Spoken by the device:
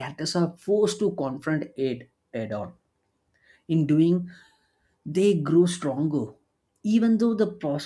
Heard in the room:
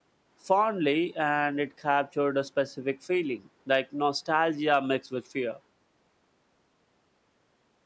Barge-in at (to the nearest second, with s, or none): 0 s